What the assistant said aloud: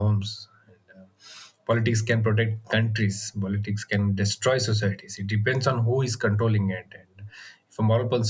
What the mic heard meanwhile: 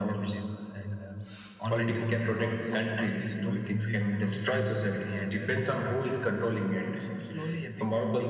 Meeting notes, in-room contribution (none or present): present